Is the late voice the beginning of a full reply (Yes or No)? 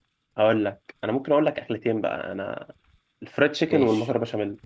No